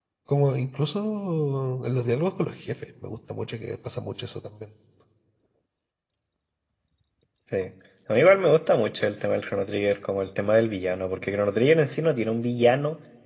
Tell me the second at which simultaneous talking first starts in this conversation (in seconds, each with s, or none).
none